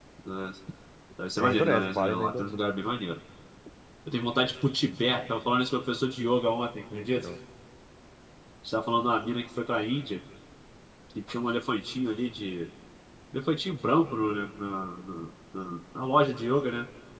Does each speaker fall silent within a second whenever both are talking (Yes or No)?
No